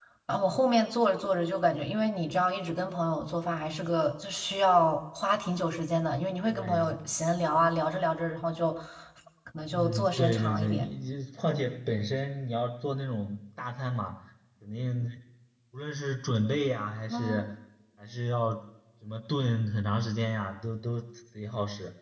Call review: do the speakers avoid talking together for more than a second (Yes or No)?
No